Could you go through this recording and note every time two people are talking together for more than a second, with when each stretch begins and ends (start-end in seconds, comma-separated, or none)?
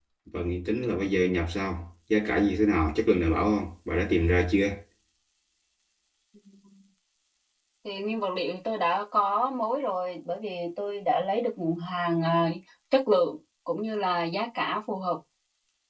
none